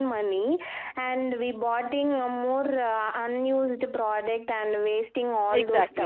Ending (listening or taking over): taking over